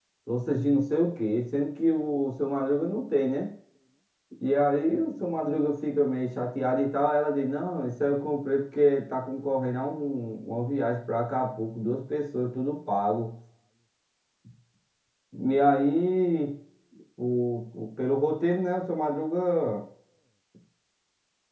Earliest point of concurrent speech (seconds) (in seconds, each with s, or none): none